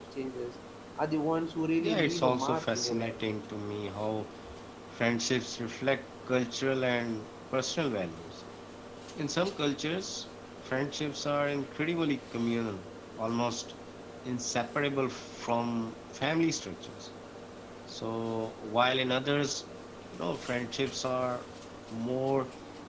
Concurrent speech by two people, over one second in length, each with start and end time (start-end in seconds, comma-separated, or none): 1.8-3.2